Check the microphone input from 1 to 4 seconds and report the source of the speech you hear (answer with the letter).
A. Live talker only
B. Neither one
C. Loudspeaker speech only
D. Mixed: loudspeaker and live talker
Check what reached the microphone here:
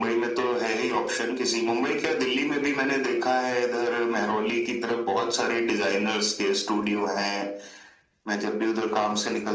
C